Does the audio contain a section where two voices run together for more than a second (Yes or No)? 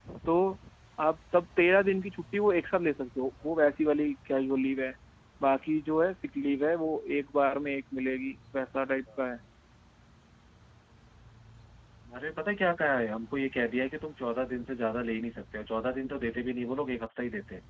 No